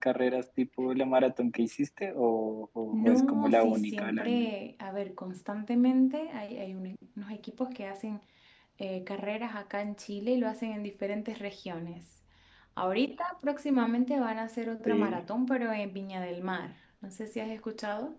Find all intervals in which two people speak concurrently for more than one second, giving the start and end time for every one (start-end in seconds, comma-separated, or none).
2.9-4.5